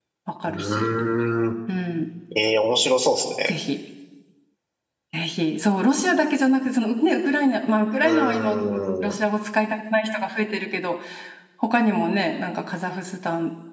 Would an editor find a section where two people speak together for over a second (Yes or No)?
No